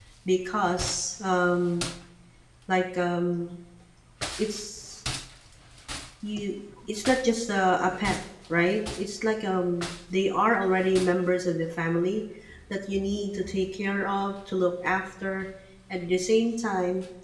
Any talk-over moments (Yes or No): No